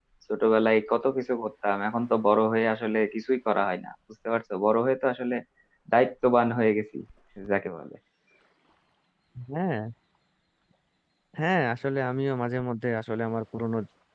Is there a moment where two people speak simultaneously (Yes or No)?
No